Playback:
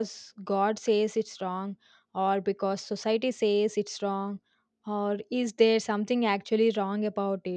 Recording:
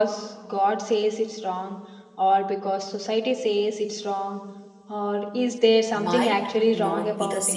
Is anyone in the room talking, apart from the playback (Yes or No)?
Yes